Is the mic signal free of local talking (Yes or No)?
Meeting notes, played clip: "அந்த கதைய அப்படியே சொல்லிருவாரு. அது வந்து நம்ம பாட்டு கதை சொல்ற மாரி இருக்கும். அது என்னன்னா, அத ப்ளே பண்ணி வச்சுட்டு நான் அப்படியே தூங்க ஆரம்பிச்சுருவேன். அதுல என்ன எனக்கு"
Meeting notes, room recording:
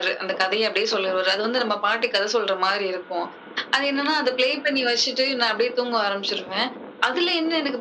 Yes